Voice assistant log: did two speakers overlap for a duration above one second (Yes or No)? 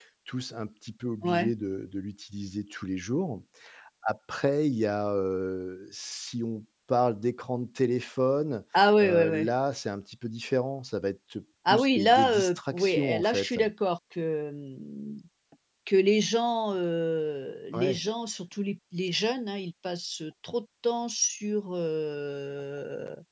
Yes